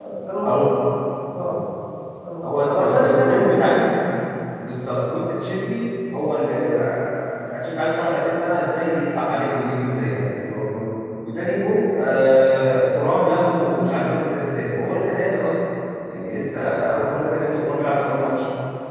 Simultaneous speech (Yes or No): Yes